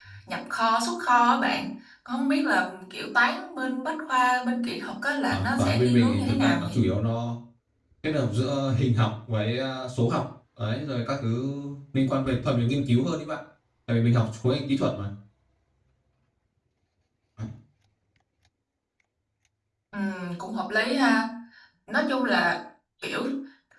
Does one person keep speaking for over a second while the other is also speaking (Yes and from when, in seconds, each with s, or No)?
Yes, from 5.3 s